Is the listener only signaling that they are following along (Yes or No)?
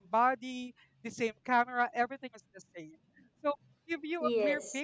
Yes